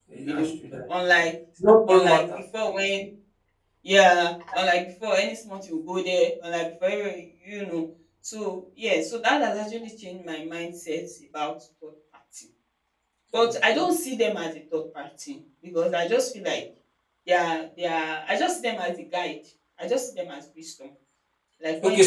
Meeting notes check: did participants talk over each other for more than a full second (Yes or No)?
No